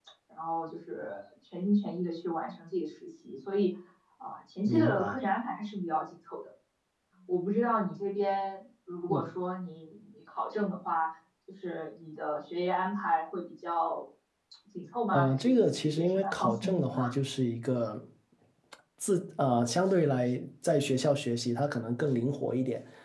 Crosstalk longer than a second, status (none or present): present